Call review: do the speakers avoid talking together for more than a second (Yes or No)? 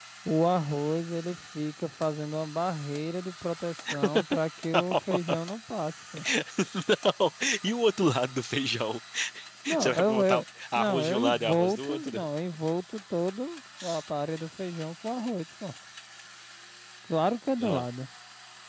No